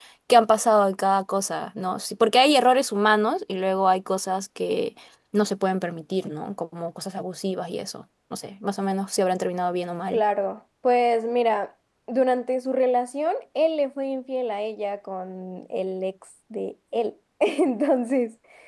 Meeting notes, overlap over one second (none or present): none